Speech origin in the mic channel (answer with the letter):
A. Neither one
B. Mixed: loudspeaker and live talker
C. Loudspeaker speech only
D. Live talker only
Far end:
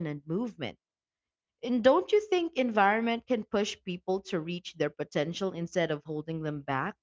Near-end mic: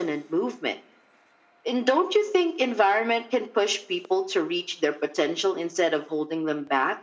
C